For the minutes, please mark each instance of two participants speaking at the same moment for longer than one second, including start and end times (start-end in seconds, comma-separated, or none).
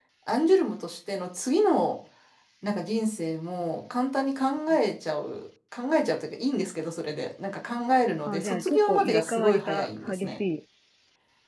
8.3-10.4